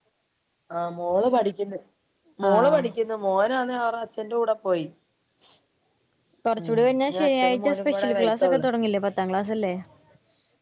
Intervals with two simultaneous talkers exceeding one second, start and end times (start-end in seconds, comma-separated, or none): 6.6-8.7